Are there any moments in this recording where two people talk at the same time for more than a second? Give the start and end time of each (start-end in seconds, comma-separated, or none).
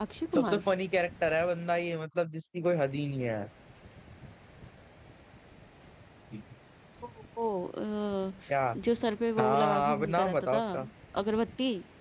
9.4-10.6